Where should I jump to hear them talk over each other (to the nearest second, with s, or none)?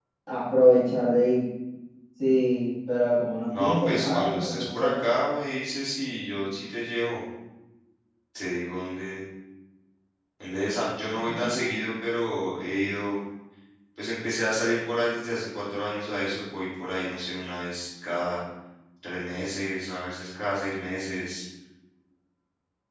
4 s